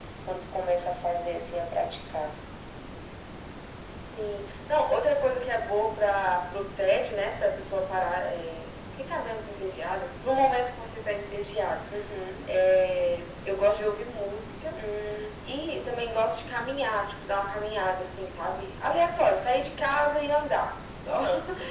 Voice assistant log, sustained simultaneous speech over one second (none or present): none